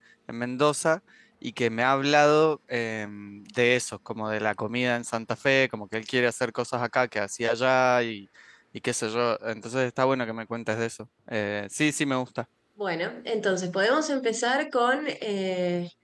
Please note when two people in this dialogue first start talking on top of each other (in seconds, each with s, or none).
none